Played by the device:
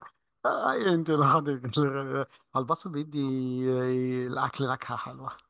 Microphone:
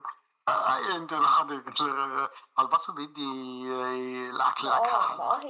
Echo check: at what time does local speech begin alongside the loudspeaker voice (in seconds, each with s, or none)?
4.6 s